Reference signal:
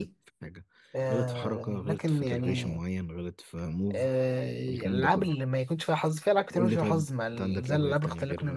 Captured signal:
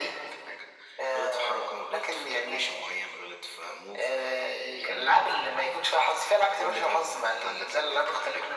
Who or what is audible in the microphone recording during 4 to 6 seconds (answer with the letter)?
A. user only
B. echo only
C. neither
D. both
B